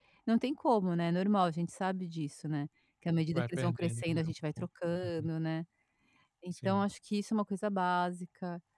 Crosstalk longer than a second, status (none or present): present